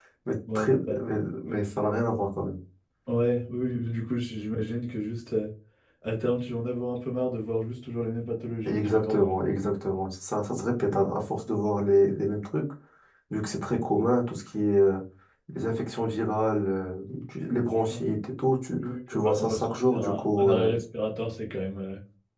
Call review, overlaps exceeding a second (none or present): present